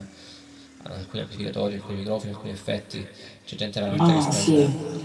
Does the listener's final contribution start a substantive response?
No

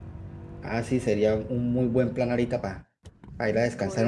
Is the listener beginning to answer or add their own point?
Yes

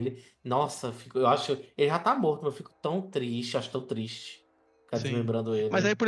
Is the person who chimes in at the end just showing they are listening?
No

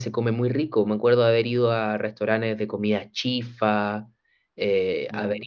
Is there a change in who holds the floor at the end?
No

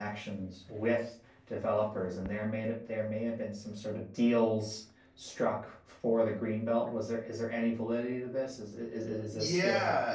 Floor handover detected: Yes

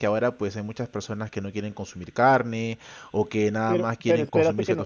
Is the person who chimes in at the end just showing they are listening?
No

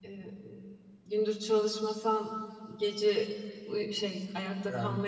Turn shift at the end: No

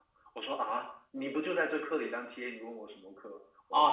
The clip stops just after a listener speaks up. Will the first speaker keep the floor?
No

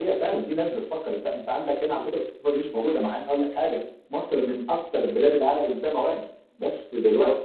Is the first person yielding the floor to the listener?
No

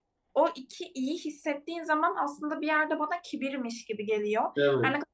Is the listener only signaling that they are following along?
Yes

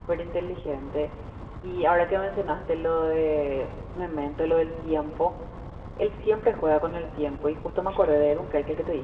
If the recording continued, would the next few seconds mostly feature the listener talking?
No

